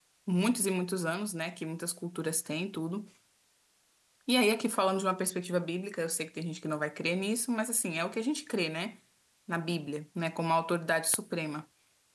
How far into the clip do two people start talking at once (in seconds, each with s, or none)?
none